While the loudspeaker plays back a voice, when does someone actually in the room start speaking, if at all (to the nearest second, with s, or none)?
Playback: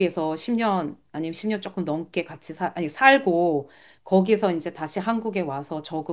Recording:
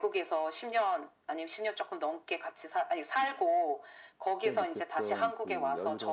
4 s